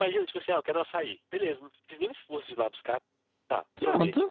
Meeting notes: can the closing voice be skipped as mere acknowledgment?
Yes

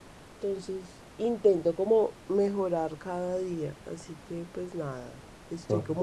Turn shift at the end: No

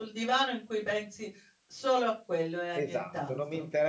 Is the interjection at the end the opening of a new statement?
Yes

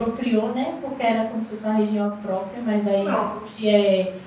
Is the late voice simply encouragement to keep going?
Yes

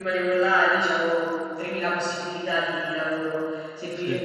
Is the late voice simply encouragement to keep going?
Yes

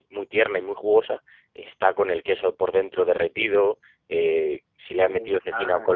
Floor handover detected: No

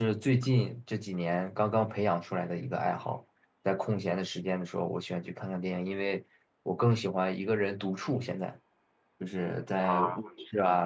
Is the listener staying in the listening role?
Yes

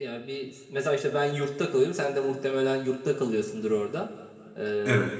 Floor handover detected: No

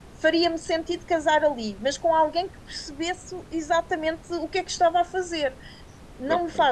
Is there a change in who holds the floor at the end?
No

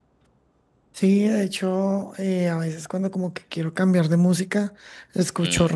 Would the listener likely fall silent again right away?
Yes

